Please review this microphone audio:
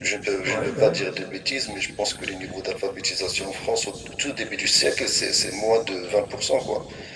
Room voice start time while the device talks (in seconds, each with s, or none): 0.4 s